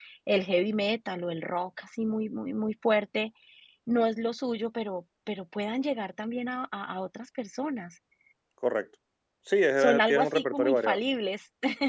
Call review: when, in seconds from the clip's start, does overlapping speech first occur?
9.8 s

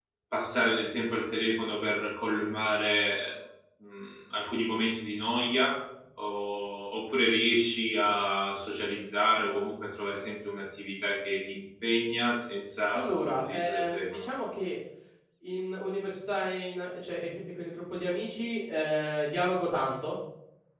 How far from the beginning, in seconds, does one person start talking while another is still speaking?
12.9 s

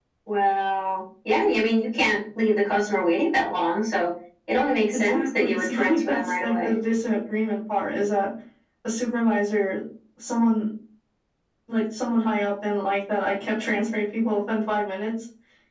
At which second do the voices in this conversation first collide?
4.9 s

